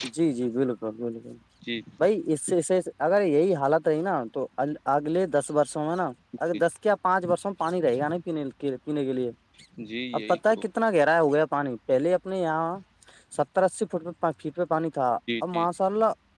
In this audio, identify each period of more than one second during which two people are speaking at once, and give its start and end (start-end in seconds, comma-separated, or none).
none